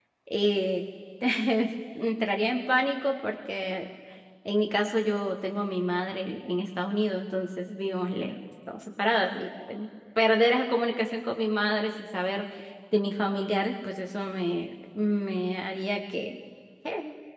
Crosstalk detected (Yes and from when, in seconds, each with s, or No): No